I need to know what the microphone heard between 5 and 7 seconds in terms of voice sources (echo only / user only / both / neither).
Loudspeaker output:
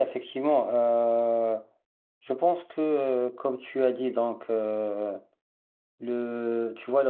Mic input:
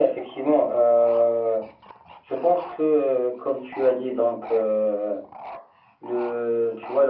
echo only